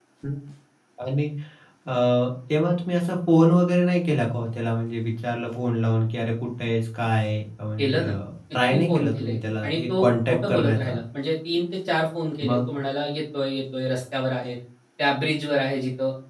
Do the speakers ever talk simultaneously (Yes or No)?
Yes